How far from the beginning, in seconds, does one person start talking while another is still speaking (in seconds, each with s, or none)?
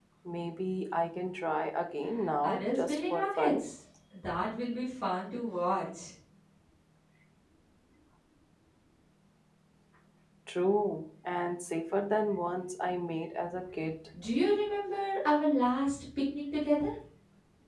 2.4 s